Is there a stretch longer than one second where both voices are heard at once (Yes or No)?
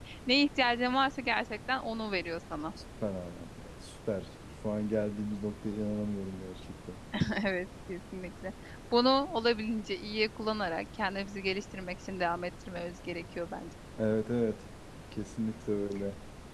No